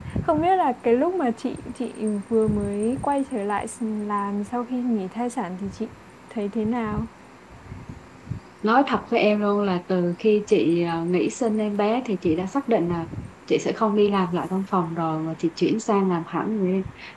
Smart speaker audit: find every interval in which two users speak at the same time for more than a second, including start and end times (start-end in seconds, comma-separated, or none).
none